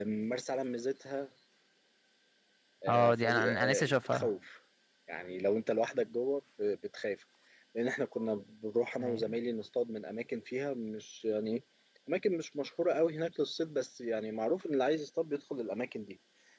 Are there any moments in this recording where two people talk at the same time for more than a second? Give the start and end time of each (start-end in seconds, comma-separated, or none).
2.9-4.3